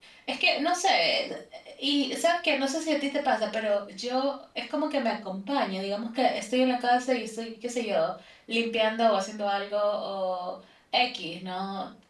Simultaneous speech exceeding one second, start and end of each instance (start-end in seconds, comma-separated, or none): none